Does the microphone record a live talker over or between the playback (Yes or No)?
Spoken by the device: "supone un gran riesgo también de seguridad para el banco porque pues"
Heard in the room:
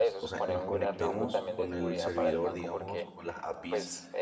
Yes